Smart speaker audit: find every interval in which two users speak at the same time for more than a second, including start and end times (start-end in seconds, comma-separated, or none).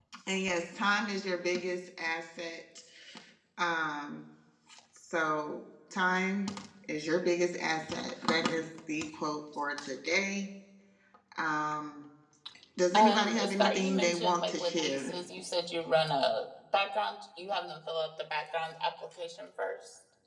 12.9-15.1